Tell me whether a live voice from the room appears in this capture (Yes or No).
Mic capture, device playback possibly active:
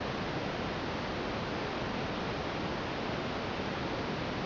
No